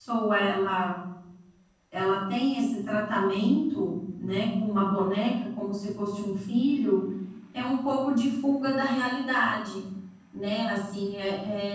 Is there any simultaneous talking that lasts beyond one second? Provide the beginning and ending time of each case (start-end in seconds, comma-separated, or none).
none